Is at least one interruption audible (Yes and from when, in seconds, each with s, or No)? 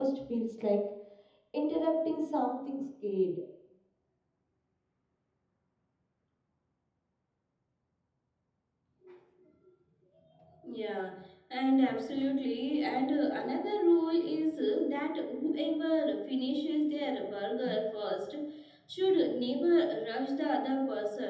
No